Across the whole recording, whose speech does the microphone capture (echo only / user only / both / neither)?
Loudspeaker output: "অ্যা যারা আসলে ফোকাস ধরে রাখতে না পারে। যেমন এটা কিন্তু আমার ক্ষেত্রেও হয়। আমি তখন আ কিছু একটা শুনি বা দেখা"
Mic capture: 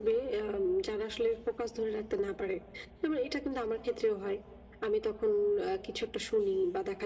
echo only